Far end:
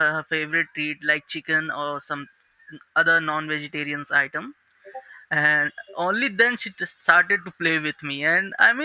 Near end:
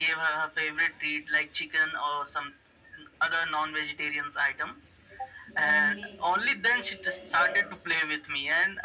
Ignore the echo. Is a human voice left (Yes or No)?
Yes